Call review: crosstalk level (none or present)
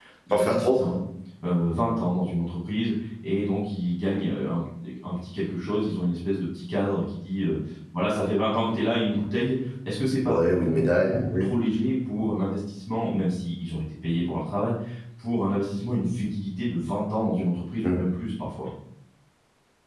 present